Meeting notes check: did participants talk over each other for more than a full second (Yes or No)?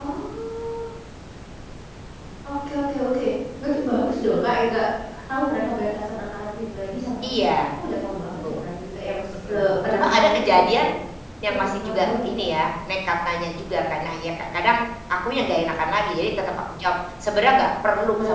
Yes